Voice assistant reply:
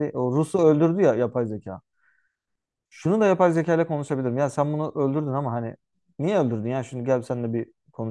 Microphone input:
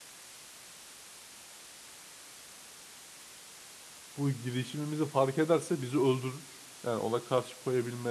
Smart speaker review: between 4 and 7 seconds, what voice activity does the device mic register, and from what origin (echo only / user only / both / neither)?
user only